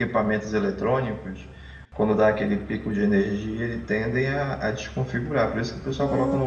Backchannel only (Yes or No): No